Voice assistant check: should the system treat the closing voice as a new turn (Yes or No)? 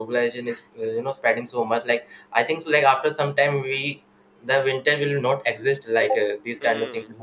Yes